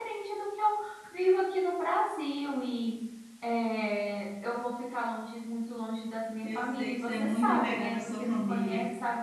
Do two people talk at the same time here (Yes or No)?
Yes